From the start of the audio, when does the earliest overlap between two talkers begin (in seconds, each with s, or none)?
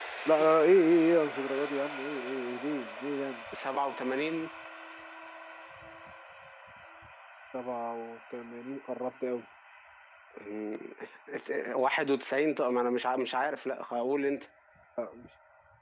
none